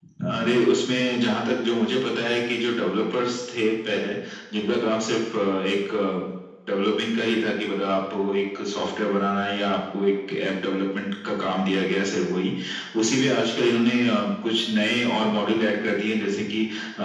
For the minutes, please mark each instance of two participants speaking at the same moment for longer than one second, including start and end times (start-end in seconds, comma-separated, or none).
none